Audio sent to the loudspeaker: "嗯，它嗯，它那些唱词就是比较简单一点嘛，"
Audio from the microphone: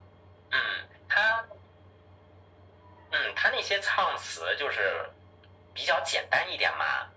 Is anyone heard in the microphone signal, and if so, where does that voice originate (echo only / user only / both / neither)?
echo only